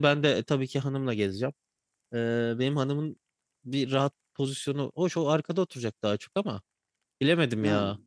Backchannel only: Yes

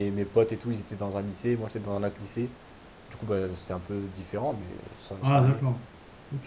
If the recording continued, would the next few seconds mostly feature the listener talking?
Yes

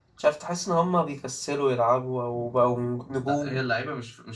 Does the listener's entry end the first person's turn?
Yes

